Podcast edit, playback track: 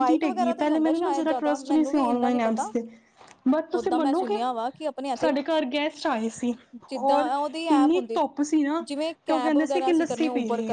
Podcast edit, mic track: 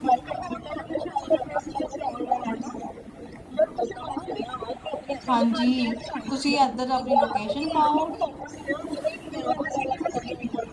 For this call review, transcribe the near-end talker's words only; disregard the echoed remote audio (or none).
ਹਾਂਜ ਜੀ, ਤੁਸੀਂ ਏਧਰ ਆਪਣੀ ਲੋਕੇਸ਼ਨ ਪਾਓ।